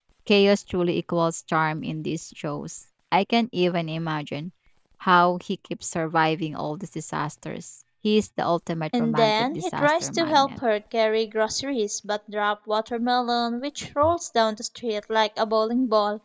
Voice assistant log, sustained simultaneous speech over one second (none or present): present